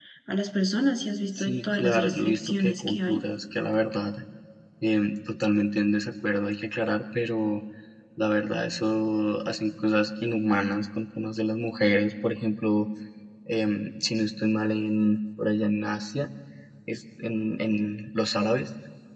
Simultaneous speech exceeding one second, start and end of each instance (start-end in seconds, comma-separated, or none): 1.4-3.2